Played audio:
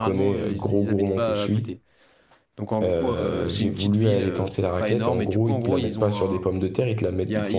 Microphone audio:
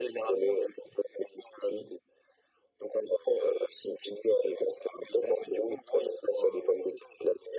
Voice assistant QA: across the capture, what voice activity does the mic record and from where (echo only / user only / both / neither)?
echo only